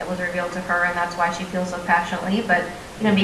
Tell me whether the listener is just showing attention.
Yes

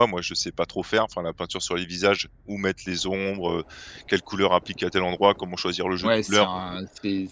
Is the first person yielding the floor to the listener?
Yes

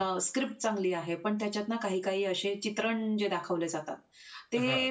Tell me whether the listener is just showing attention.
Yes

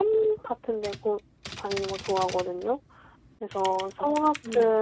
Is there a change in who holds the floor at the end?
No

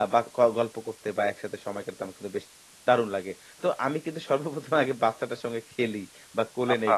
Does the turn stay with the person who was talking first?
Yes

